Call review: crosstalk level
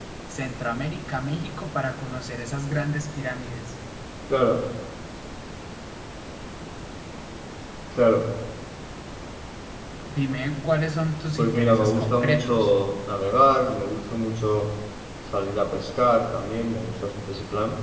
present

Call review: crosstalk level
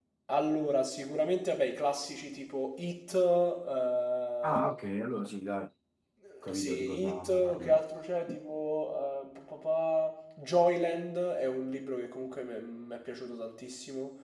present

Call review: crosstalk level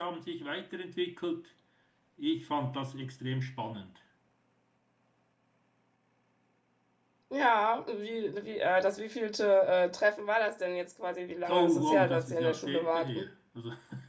present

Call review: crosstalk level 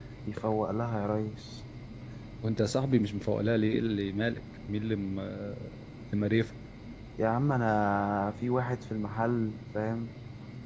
none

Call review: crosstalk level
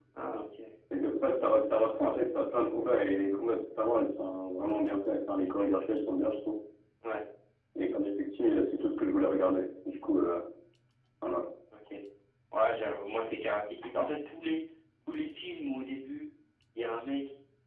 none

